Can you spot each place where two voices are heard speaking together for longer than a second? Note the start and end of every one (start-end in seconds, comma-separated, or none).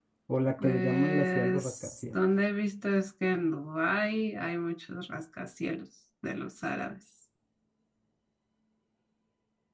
0.6-2.1